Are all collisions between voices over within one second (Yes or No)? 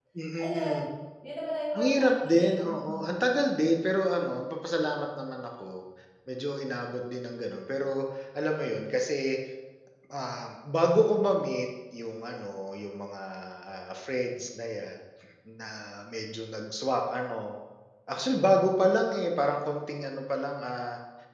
No